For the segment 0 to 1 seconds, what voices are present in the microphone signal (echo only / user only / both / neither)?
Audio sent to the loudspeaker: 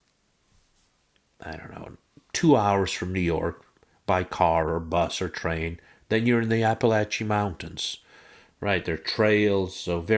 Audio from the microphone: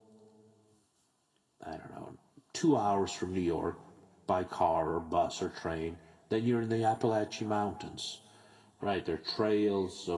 neither